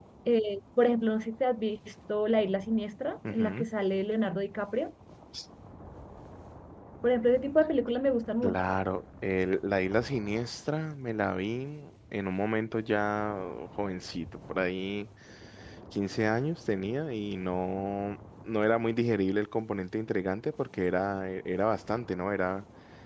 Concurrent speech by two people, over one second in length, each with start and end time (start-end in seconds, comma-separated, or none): none